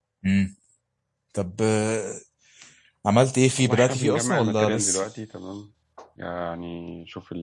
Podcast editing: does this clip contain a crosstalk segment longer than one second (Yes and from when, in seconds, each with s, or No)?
Yes, from 3.6 s